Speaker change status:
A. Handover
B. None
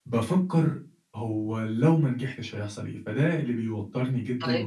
B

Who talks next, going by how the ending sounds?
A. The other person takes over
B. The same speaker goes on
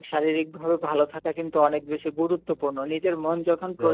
B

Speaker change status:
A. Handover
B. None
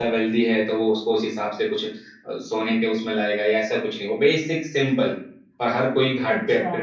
A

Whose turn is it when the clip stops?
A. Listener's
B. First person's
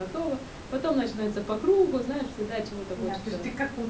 A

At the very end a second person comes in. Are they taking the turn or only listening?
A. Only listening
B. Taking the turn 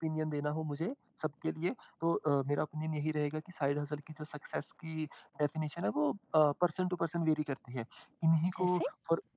A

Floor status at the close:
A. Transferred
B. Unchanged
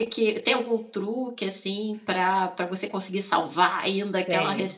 B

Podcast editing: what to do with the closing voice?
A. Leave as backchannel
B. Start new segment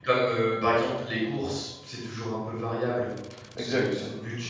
A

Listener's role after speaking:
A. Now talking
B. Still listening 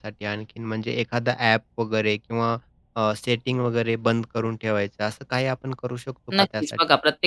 A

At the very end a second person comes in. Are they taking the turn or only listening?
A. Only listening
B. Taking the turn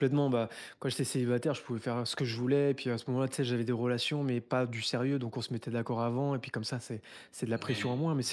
A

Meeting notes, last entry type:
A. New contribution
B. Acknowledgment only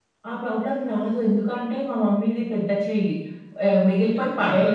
B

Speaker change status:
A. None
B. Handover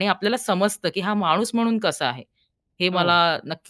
A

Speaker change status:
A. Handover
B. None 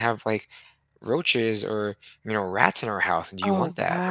A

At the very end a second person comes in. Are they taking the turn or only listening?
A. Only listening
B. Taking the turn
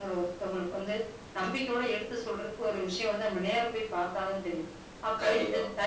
A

